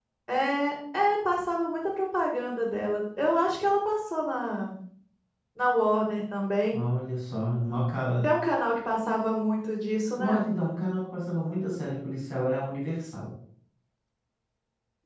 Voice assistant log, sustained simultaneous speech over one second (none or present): none